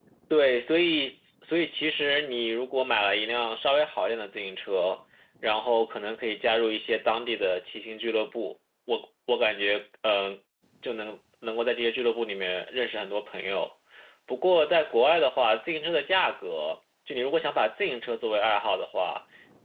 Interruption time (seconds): none

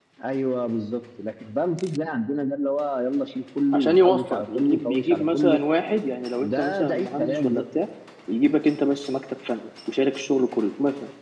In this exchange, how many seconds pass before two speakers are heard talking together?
3.7 s

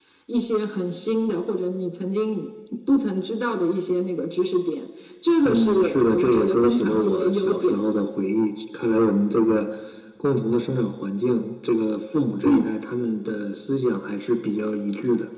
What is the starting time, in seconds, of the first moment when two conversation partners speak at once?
5.4 s

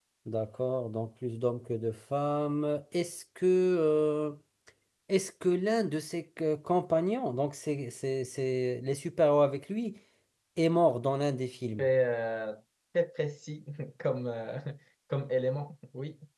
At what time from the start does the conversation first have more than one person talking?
none

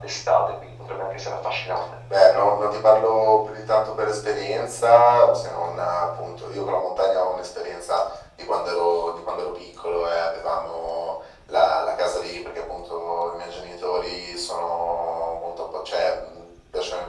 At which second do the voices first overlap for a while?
none

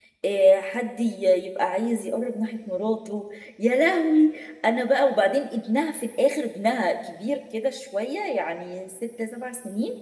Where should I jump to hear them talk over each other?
none

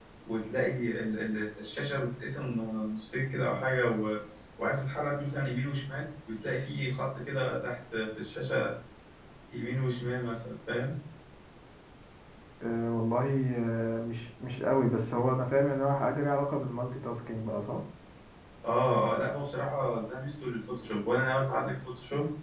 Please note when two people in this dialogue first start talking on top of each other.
none

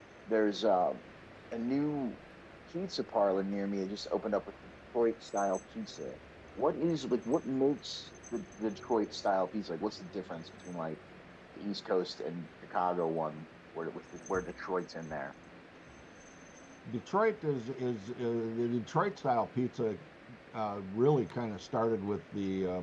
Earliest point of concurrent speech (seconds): none

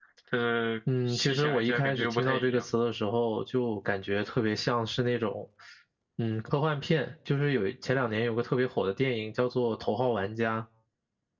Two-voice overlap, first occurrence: 1.1 s

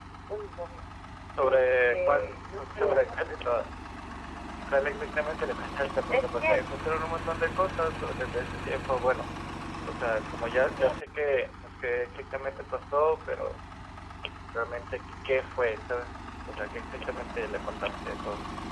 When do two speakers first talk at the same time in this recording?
1.4 s

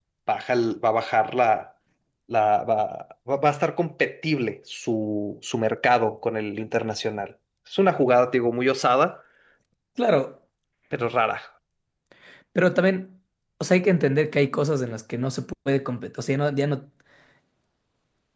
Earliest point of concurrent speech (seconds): none

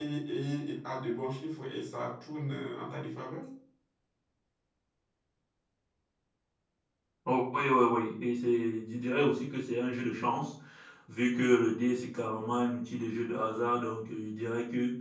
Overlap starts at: none

